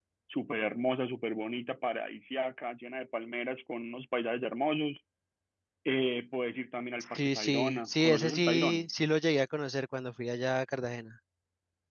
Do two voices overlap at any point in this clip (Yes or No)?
Yes